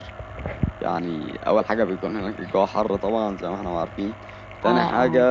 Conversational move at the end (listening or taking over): listening